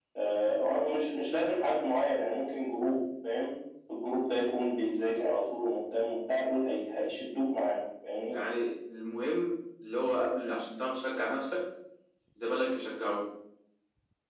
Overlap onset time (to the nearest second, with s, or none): none